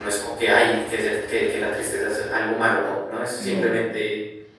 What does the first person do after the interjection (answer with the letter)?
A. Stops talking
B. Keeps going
B